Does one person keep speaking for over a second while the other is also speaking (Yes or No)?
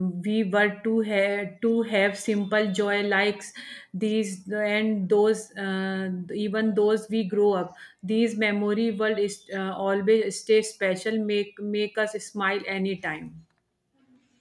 No